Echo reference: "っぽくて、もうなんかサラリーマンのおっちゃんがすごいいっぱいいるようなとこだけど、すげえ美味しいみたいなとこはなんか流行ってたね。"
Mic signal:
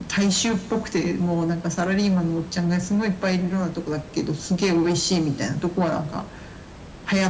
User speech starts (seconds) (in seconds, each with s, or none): none